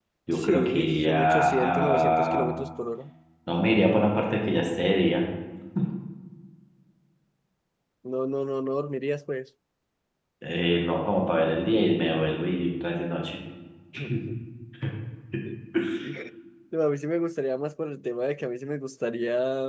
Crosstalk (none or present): present